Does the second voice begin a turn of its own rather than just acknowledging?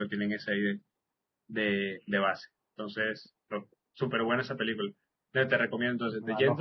No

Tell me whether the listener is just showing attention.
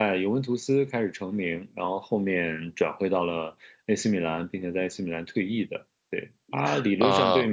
Yes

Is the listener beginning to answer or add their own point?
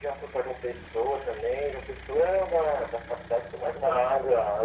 Yes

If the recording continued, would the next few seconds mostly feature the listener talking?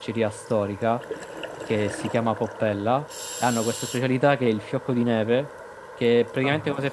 No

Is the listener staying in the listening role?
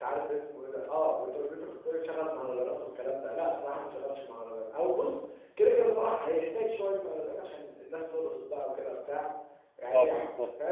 Yes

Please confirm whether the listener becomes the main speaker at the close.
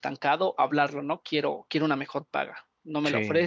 No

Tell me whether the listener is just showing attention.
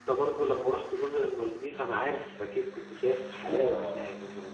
No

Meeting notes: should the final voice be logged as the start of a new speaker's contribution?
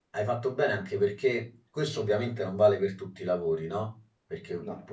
No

